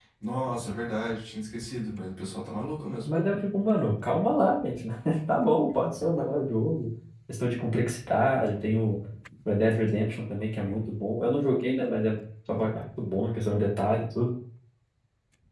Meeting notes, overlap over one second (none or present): none